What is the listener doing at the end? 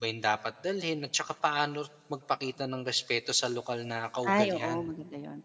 taking over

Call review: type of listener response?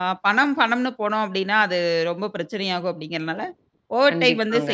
listening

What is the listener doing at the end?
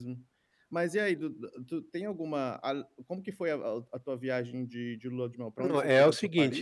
taking over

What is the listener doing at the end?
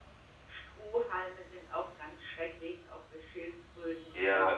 taking over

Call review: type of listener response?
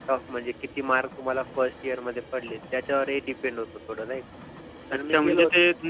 taking over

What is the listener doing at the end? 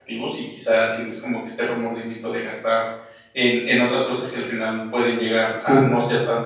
listening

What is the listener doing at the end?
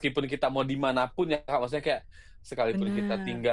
listening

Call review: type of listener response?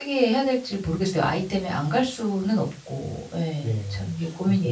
taking over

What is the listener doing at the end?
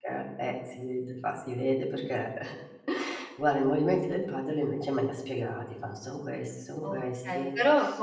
taking over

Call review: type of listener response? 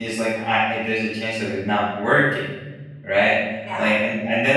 listening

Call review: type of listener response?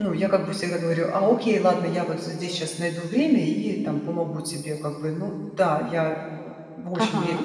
taking over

